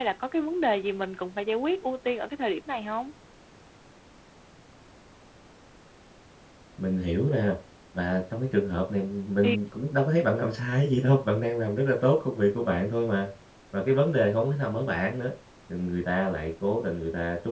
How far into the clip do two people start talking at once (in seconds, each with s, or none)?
none